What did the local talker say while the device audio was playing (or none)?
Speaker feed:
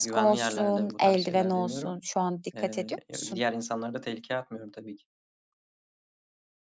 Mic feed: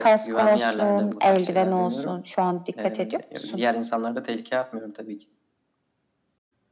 none